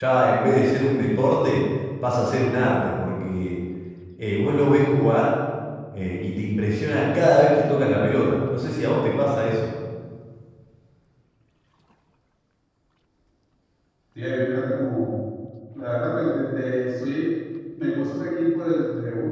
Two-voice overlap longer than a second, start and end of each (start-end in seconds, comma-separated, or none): none